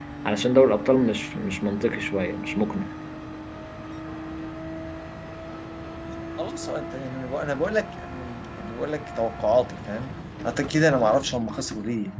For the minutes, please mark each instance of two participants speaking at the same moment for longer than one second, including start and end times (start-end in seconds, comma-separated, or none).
none